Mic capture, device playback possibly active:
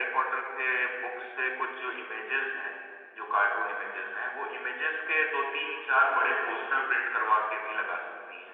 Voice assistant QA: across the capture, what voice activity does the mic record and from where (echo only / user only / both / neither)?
echo only